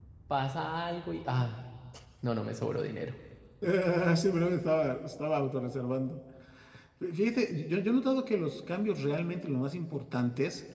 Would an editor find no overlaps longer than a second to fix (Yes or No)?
Yes